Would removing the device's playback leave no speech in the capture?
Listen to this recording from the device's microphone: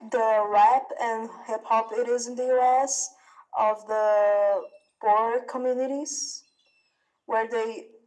Yes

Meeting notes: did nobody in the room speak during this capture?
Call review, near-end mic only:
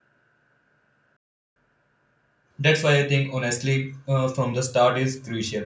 No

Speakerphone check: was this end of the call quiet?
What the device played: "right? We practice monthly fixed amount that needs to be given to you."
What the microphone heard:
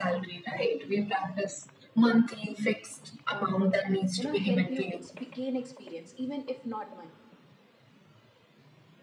No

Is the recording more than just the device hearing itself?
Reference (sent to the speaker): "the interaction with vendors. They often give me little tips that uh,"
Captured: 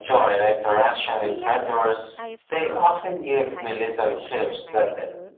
Yes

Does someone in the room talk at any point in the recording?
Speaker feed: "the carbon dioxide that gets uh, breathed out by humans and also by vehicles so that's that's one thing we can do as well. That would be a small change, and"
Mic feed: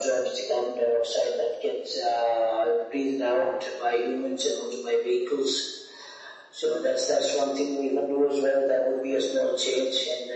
No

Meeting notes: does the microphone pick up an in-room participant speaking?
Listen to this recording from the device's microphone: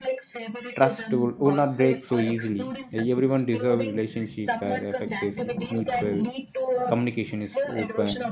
Yes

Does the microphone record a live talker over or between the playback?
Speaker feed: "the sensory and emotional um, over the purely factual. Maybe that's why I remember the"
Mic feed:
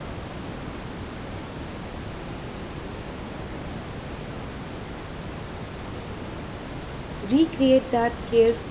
Yes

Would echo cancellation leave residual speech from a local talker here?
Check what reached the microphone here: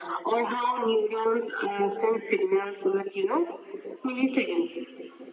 No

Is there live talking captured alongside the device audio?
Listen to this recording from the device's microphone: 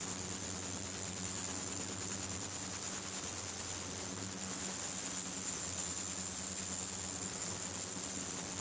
No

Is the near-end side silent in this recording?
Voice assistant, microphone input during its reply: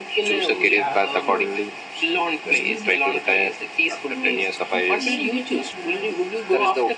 No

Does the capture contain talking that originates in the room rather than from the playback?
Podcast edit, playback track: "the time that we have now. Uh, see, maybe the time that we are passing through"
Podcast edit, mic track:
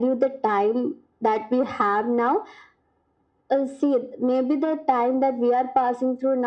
No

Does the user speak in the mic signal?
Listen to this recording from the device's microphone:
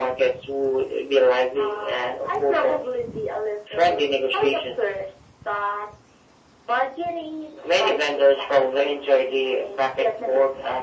No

